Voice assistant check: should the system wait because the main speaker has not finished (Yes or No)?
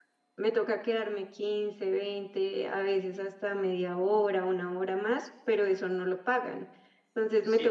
No